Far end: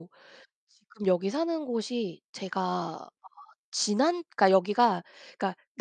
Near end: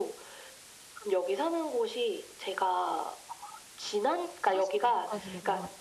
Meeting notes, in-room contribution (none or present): present